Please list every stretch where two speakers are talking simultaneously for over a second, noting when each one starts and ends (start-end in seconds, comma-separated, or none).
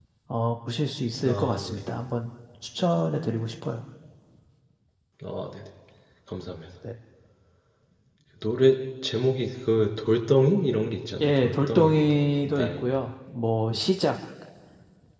11.2-12.8